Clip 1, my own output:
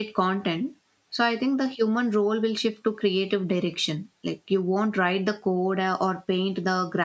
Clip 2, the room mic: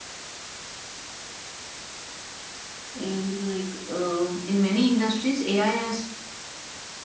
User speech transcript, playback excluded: is like um in many industries, AI has

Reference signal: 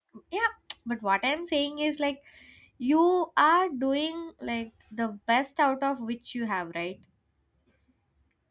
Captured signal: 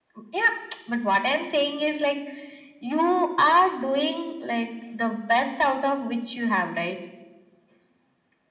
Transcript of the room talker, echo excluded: none

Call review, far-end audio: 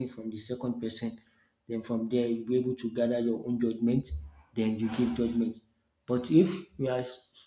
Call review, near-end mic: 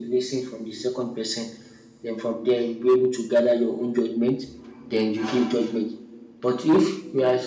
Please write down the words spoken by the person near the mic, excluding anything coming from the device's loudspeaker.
none

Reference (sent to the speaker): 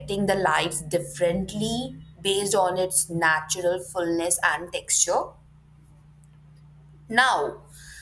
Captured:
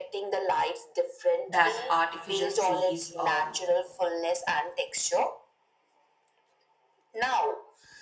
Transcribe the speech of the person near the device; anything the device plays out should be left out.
that artificial trees um,

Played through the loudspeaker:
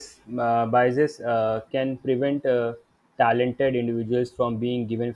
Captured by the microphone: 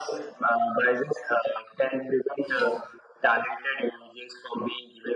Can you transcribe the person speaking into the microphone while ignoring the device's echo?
yeah

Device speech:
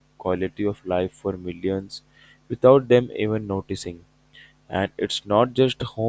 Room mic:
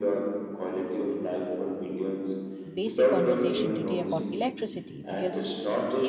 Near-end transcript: basic conversation today about electricity because

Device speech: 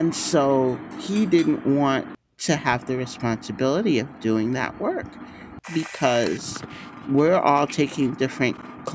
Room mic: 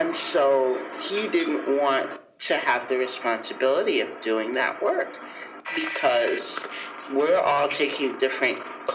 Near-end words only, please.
none

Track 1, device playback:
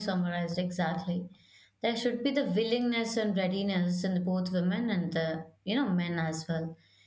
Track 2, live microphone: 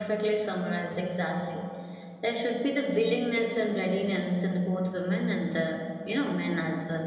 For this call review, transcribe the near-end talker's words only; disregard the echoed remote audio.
none

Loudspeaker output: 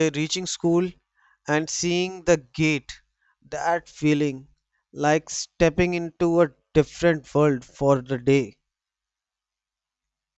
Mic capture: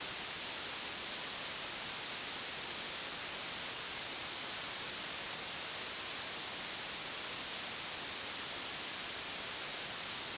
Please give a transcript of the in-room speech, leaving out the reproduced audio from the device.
none

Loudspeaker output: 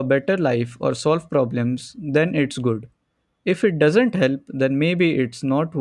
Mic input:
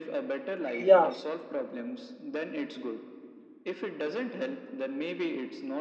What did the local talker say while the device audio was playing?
Yeah,

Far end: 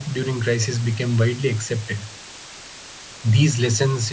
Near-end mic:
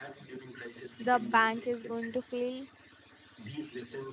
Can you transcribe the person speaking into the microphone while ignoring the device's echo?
the bank is going to fail,

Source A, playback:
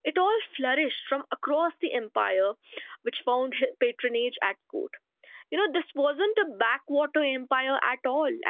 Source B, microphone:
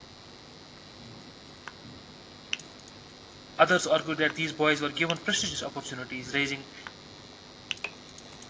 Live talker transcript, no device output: others argue that these boys were given prestigious opportunities, raising,

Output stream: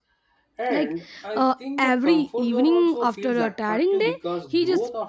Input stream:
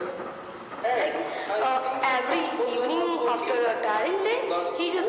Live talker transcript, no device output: none

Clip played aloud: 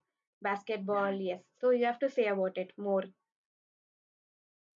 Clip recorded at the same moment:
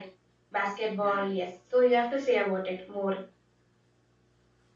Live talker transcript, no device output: none

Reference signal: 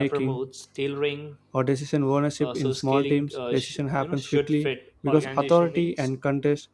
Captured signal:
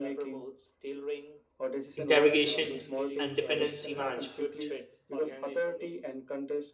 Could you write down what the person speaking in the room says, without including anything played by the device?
interrogation and dependency management,

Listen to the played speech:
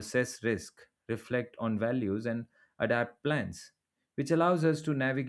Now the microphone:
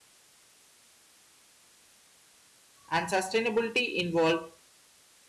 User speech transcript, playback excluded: and sustainability involved

